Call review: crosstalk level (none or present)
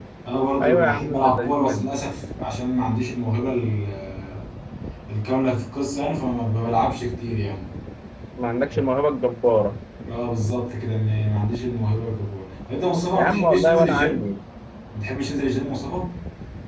present